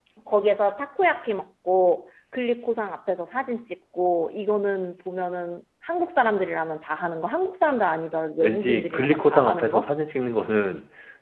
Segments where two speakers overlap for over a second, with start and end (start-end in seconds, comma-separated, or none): 8.4-9.9